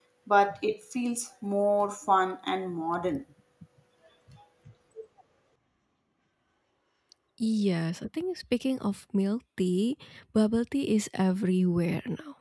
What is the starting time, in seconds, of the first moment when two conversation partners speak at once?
none

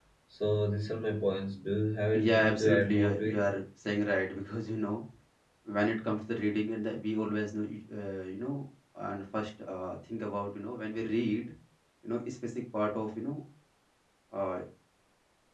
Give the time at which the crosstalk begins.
2.1 s

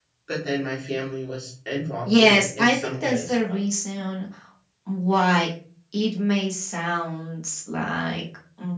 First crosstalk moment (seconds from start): 2.0 s

